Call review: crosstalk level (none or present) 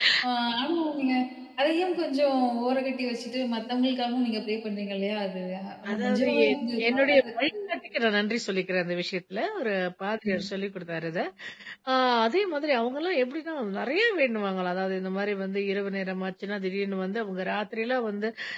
present